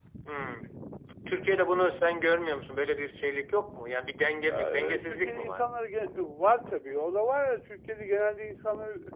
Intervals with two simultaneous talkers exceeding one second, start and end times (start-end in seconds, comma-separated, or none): 4.5-5.7